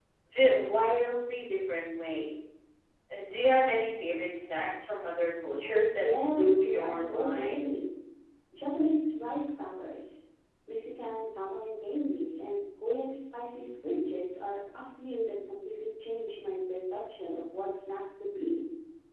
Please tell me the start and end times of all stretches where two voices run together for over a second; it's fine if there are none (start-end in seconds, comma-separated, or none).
5.6-7.7